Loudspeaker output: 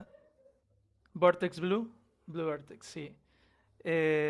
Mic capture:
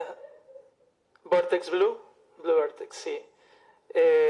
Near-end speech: none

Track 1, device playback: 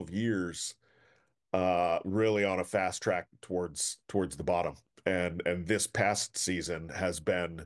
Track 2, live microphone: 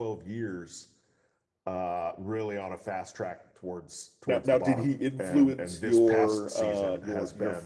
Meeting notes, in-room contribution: present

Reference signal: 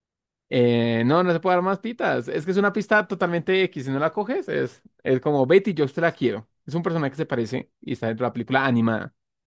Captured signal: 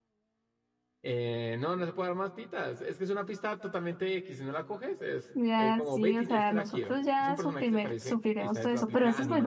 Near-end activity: present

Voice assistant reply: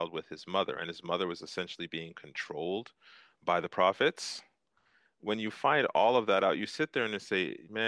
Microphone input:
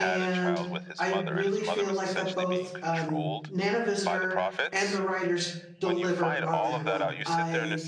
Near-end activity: present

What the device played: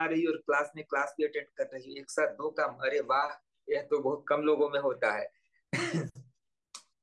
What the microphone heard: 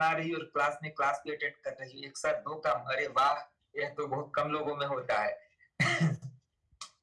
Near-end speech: none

